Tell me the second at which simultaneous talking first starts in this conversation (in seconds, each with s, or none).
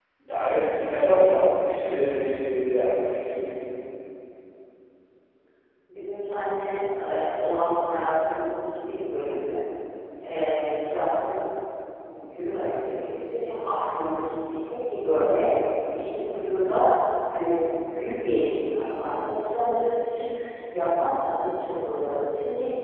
none